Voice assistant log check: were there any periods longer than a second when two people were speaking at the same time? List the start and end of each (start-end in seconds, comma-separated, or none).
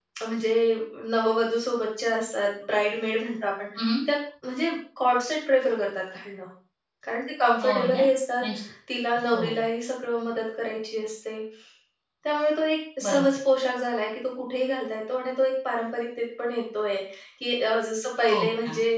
none